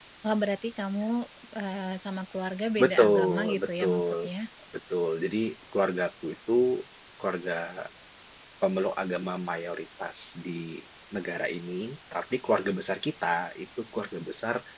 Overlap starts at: 2.8 s

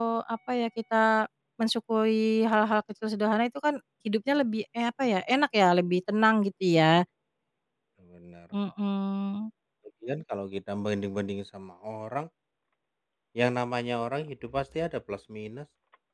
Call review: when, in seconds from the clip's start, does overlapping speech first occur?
none

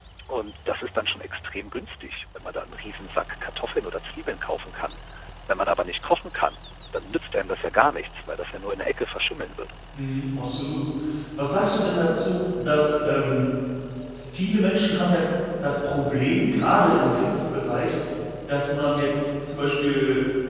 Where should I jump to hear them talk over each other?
none

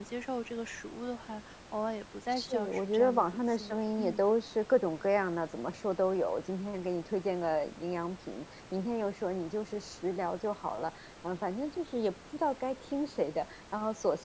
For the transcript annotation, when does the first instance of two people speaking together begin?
2.3 s

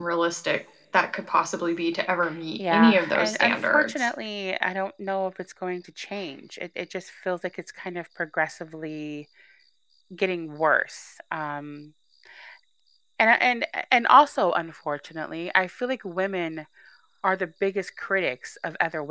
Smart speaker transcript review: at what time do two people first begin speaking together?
2.7 s

